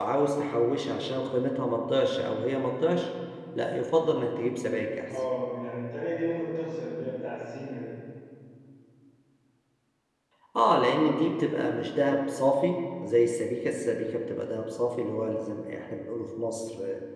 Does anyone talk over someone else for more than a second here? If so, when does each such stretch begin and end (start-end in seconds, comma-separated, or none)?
none